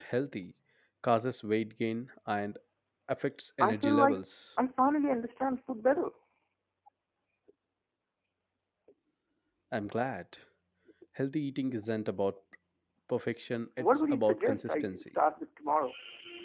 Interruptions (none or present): present